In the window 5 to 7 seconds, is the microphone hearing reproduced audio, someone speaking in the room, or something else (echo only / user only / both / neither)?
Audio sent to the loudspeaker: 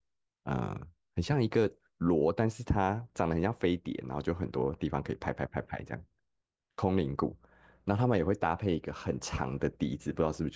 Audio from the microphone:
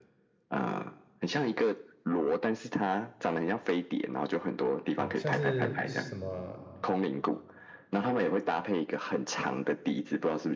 both